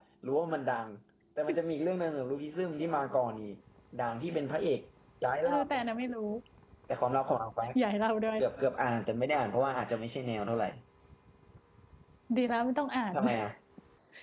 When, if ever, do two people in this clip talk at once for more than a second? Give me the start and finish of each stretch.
none

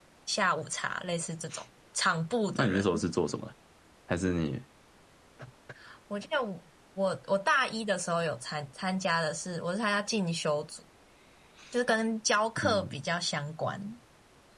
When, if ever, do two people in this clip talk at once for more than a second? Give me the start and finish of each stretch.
none

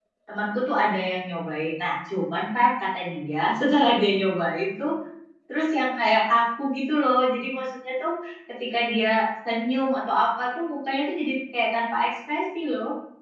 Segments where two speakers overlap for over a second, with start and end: none

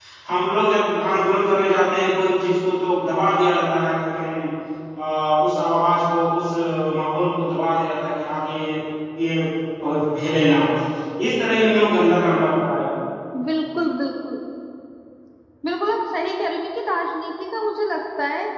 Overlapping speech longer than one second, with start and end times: none

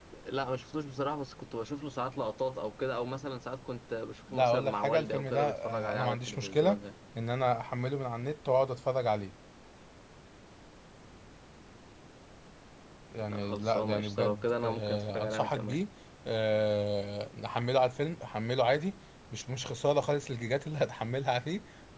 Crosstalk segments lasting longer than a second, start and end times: 4.3-6.8, 13.3-15.8

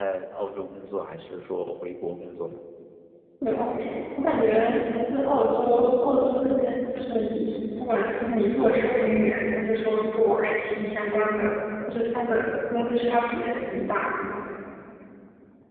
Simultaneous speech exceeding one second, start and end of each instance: none

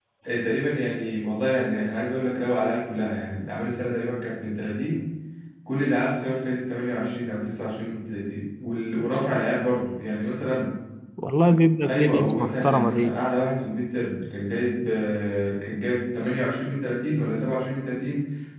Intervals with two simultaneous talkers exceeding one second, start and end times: 11.9-13.1

